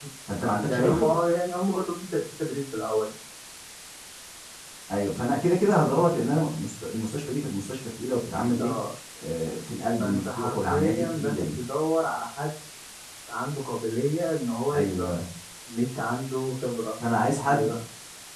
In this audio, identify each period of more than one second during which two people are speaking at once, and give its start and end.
10.0-11.5

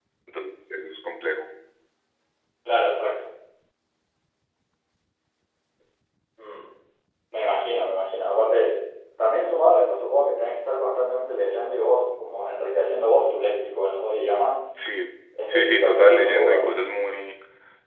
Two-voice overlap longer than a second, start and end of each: 15.5-16.8

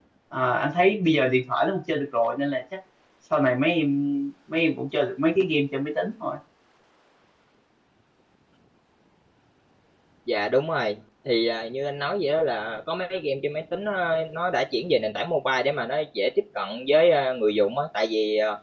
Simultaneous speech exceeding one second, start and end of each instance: none

